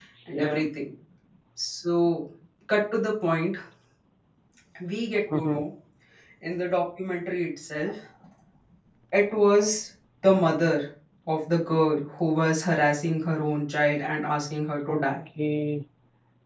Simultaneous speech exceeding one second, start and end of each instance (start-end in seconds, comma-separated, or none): none